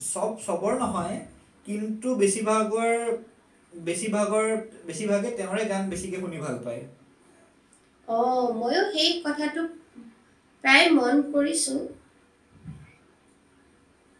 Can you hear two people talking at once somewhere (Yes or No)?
No